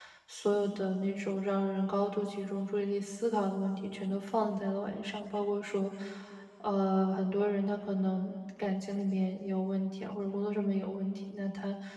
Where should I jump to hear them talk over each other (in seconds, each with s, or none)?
none